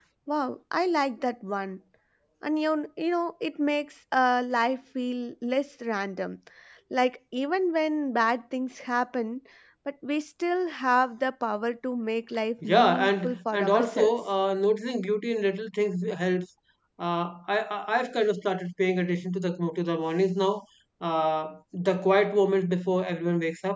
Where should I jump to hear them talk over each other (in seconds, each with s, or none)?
12.6 s